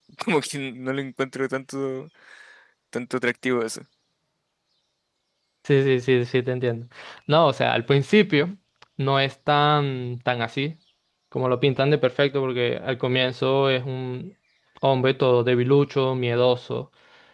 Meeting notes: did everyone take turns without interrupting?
Yes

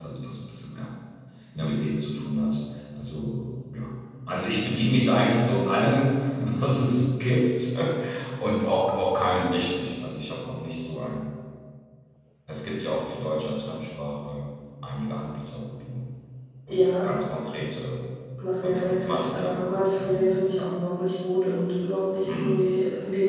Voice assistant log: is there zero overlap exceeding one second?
No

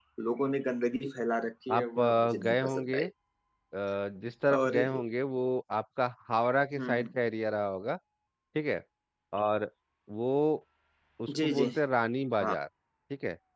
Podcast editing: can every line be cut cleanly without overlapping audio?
No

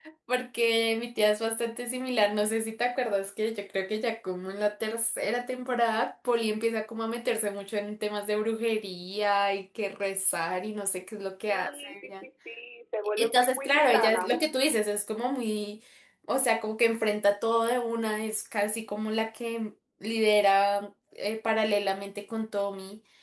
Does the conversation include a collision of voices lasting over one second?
Yes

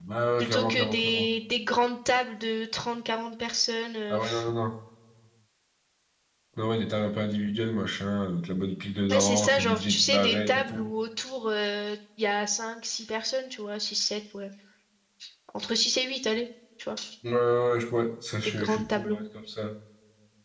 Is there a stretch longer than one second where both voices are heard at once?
Yes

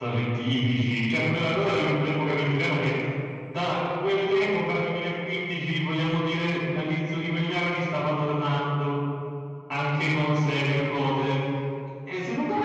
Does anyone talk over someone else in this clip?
No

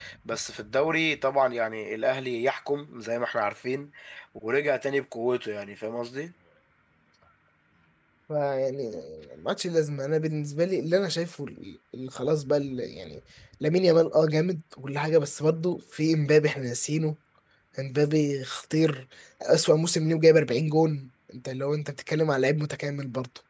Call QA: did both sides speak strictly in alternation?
Yes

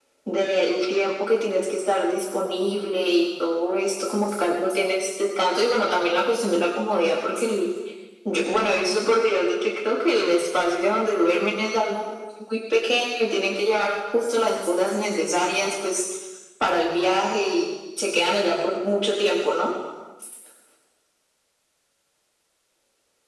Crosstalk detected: No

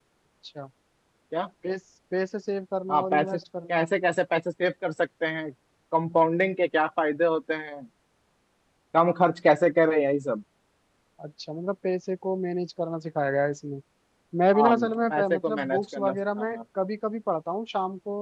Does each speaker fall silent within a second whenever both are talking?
No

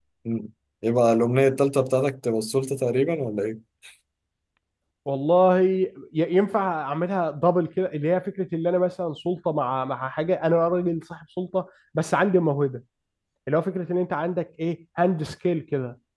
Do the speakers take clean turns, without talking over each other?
Yes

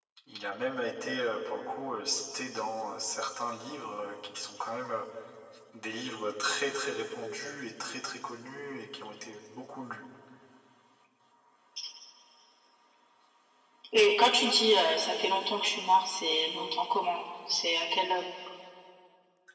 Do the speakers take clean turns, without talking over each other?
Yes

